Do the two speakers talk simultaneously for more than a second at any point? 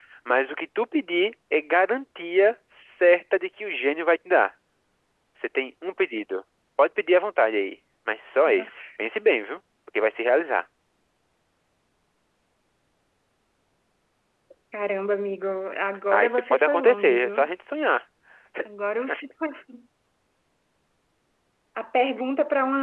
Yes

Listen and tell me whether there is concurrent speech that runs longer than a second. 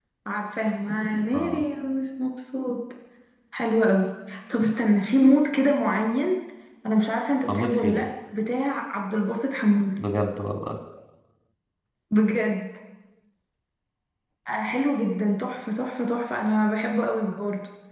No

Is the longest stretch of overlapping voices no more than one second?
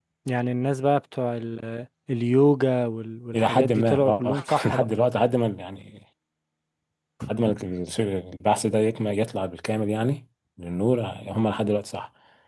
No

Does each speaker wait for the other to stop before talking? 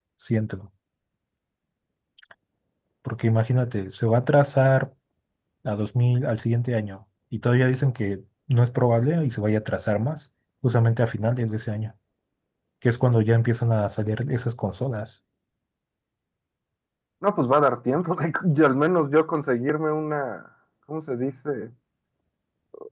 Yes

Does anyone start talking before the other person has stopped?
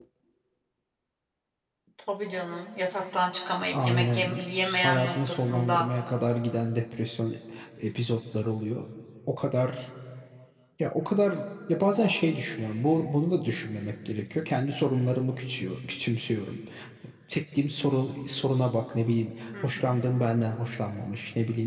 Yes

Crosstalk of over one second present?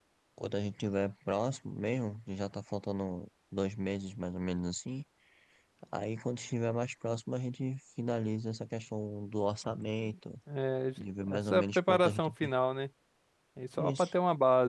Yes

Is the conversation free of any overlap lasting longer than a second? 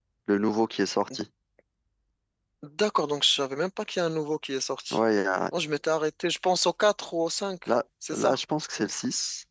Yes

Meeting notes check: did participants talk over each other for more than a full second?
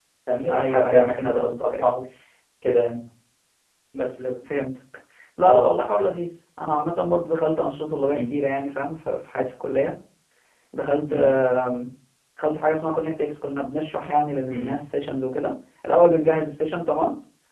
Yes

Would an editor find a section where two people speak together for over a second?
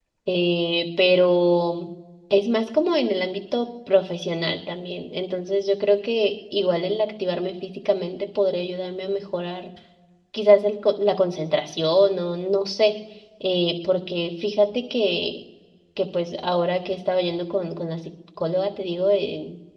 No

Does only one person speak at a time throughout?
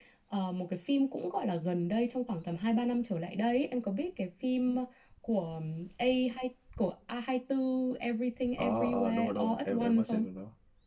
No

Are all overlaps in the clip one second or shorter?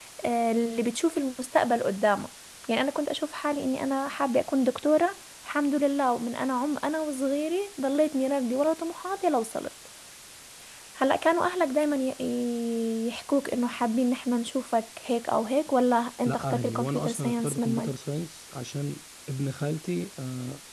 No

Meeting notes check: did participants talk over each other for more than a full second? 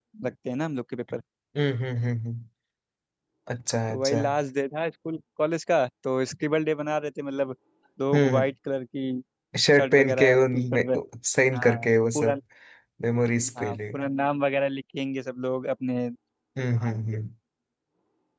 Yes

